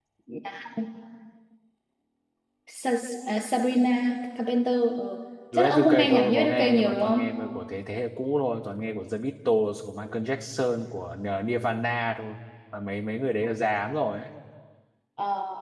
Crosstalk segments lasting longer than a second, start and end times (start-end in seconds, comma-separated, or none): 5.5-7.2